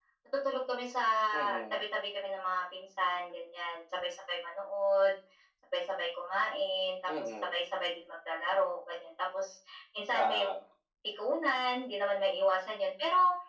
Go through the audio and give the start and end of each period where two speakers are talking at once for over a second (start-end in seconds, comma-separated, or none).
none